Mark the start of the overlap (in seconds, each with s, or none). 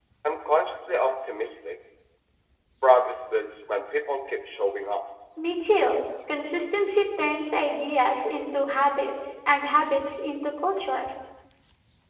none